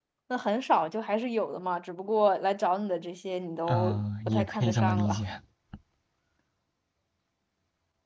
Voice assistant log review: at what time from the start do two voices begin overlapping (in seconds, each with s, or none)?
3.7 s